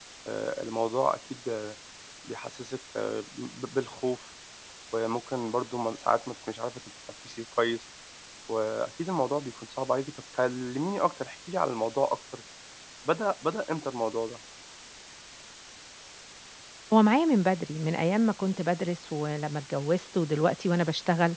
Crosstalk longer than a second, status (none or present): none